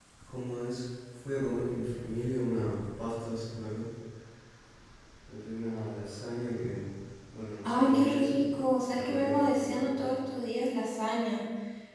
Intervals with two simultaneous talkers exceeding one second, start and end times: 7.6-10.1

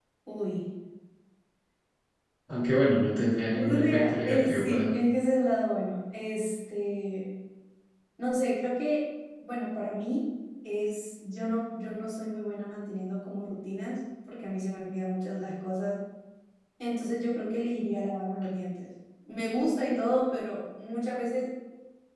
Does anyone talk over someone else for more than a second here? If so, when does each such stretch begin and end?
3.5-4.9

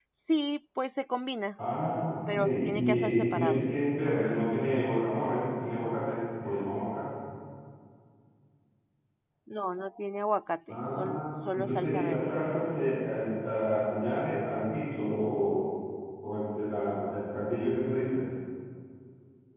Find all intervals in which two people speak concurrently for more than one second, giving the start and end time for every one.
2.3-3.6, 10.7-12.3

